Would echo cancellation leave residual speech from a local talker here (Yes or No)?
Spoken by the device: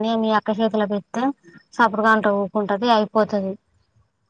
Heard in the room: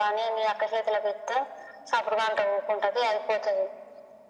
No